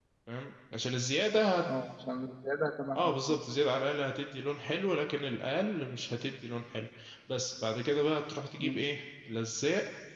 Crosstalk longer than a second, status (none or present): none